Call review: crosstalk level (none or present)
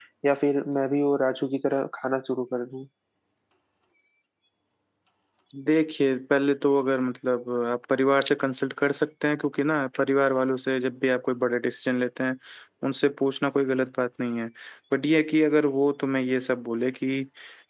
none